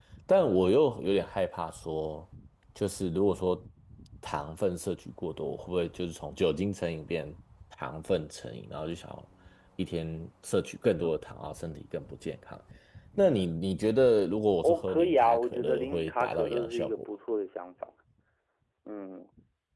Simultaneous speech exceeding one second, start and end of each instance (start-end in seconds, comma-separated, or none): 14.6-17.0